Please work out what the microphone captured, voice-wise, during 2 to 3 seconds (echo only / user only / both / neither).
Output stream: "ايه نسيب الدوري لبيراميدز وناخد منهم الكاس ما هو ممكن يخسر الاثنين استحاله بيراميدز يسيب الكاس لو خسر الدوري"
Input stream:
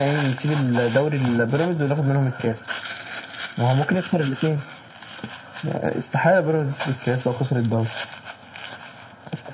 echo only